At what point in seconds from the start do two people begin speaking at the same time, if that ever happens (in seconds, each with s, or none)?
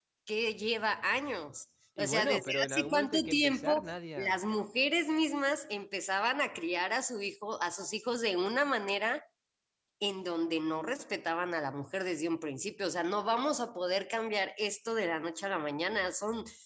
2.0 s